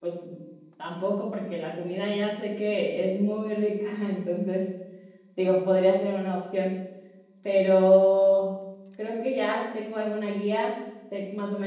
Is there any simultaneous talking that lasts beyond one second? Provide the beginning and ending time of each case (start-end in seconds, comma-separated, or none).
none